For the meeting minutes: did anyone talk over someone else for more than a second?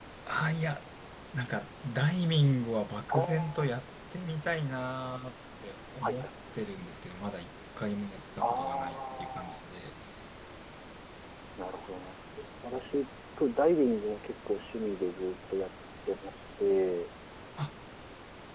Yes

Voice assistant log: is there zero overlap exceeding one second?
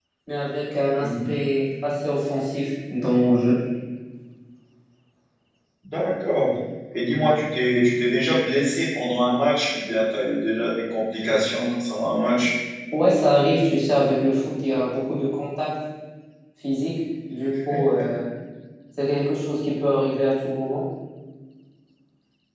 Yes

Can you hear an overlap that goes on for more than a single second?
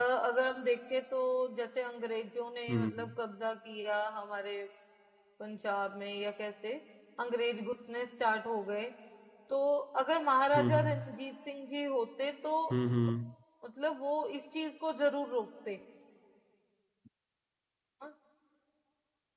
No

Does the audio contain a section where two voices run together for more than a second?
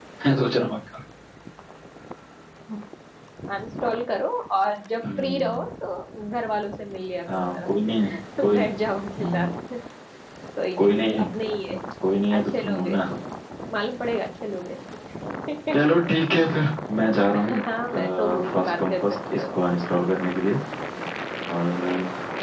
Yes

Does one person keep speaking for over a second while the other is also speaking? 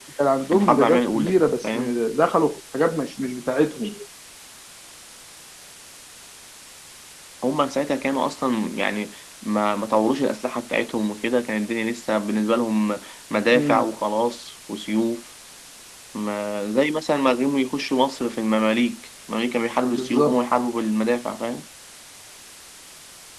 Yes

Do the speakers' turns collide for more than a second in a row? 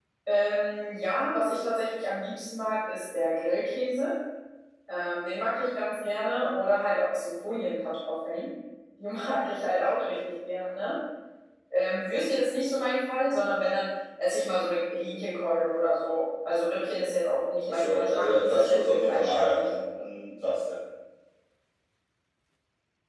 Yes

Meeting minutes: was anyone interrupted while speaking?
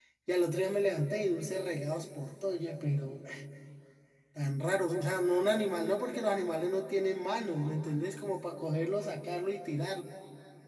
No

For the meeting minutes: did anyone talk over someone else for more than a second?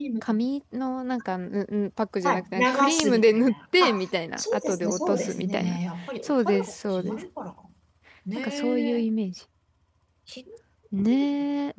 Yes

